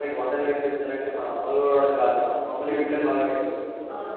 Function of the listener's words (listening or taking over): taking over